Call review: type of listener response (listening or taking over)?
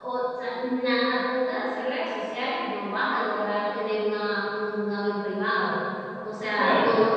listening